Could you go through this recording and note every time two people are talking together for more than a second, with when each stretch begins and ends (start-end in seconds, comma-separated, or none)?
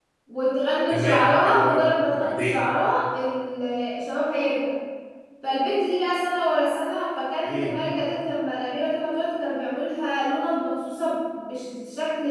0.9-2.6